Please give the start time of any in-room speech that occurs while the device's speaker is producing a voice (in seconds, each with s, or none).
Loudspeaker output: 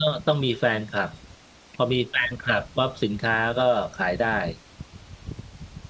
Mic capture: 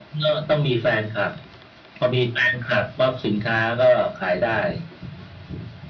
none